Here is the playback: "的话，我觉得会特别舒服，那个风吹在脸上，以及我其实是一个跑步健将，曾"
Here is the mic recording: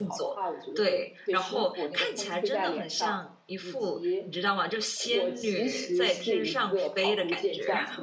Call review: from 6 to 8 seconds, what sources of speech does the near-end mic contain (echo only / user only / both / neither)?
both